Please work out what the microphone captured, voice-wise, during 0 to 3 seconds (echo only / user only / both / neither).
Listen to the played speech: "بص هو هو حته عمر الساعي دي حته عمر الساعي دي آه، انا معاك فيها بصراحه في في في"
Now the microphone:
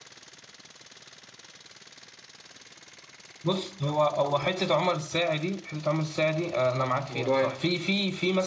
neither